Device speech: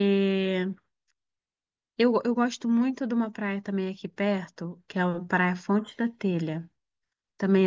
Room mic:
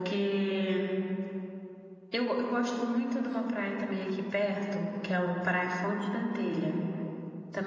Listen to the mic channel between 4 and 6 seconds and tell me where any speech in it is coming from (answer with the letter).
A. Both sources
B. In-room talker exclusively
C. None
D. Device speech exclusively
D